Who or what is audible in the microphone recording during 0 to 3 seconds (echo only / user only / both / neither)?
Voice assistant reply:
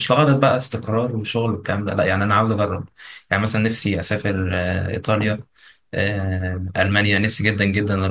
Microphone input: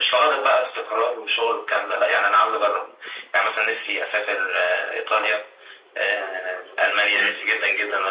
echo only